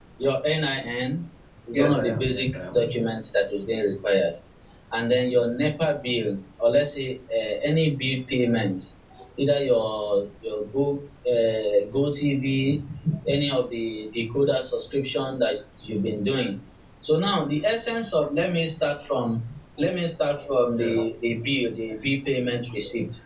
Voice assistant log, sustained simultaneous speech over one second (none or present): present